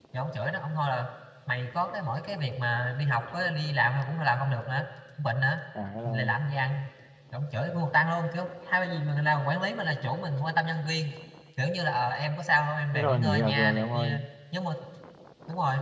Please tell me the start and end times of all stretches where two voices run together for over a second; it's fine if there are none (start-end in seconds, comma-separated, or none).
12.9-14.2